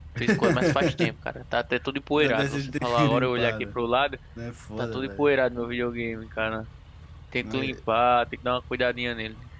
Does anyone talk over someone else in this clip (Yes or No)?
Yes